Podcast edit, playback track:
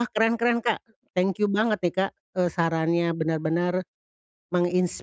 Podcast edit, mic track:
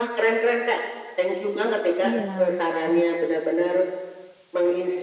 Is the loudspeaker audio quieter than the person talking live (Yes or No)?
No